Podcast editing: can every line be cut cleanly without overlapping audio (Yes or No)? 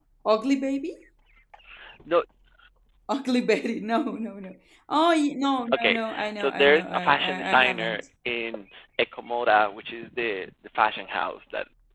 No